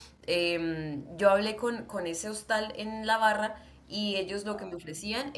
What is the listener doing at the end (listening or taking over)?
listening